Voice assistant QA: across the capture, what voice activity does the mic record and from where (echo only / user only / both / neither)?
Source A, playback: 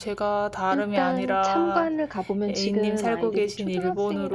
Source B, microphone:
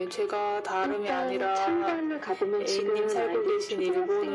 echo only